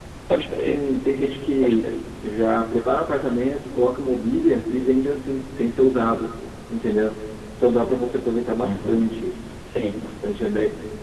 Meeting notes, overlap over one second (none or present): none